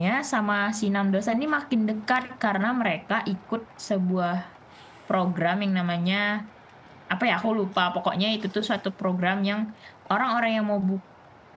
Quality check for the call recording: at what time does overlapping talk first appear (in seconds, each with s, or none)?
none